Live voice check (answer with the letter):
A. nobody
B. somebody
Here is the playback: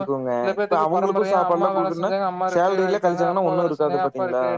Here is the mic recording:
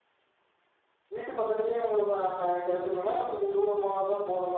B